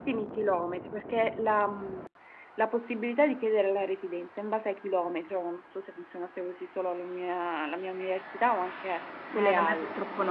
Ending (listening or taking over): taking over